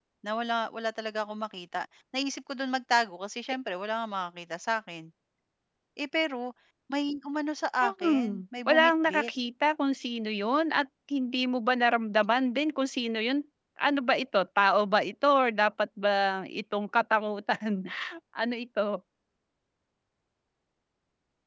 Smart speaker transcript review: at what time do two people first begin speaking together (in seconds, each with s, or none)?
7.8 s